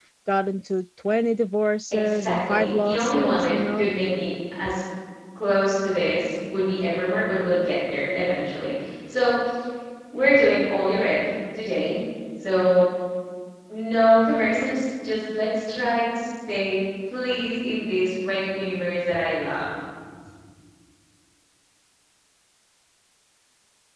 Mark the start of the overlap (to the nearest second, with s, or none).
2 s